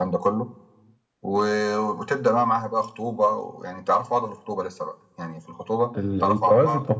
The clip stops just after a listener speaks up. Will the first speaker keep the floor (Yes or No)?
No